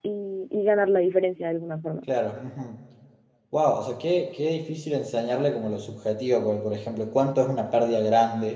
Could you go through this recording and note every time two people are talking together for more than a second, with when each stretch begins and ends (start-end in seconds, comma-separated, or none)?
none